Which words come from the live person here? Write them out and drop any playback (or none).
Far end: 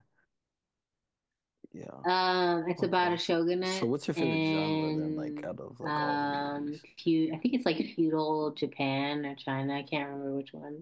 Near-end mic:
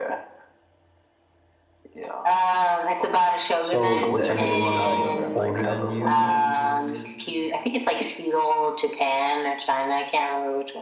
So that anyone like older than you